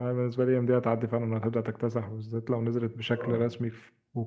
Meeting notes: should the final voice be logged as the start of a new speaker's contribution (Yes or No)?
No